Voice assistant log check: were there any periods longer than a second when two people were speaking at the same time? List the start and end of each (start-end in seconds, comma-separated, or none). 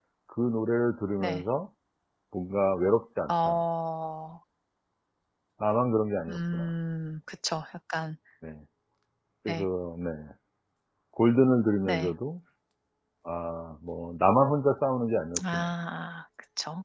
none